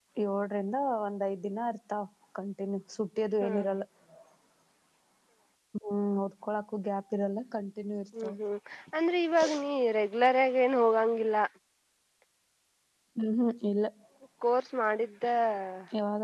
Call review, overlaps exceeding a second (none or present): none